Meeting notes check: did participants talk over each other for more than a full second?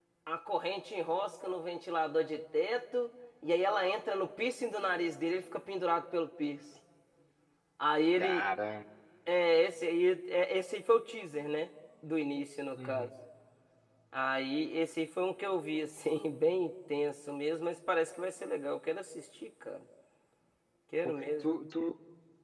No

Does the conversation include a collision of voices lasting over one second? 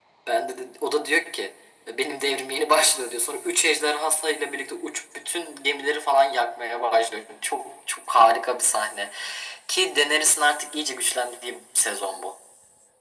No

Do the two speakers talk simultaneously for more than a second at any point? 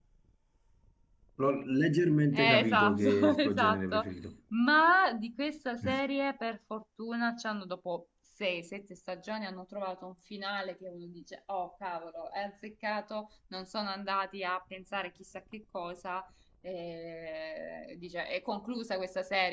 Yes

